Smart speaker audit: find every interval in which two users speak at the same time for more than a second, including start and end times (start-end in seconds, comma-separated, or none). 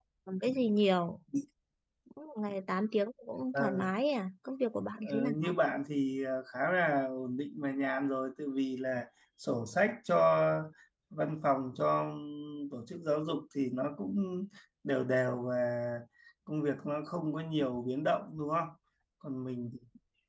none